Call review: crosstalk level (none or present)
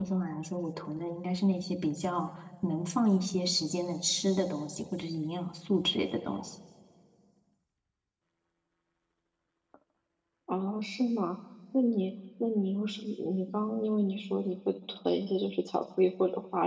none